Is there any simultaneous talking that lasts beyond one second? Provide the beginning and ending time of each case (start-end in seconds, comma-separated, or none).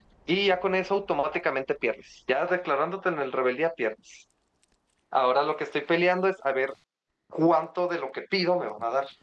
none